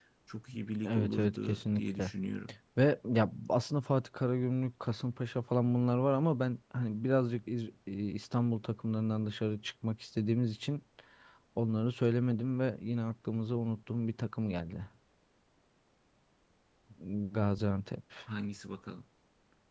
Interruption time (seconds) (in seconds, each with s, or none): 0.8 s